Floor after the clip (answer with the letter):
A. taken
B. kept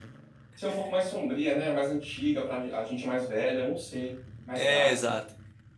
A